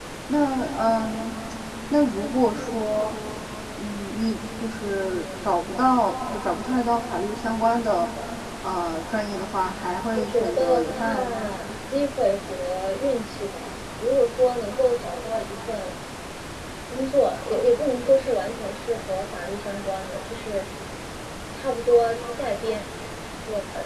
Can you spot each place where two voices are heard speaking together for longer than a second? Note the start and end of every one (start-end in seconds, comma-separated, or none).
10.2-11.5